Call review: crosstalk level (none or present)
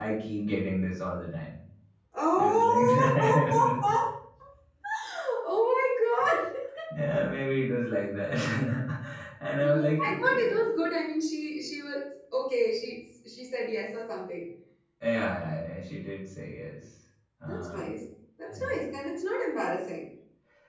present